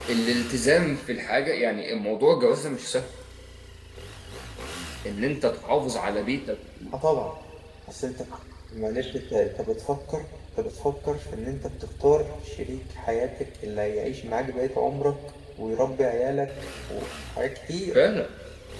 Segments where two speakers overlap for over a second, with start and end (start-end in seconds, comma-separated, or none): none